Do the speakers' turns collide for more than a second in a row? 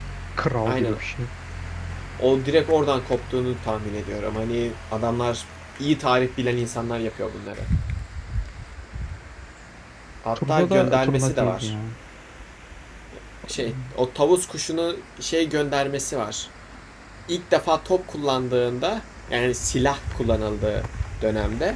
Yes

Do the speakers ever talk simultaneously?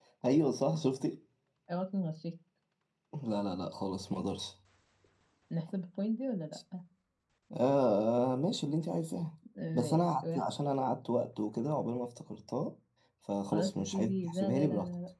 Yes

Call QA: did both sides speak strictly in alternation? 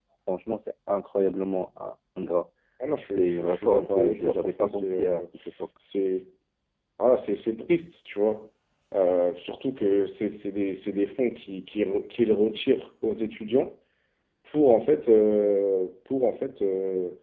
No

